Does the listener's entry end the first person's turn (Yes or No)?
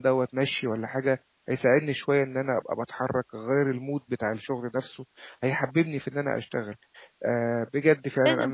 Yes